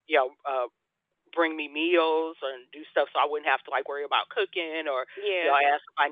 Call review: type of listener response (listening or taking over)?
listening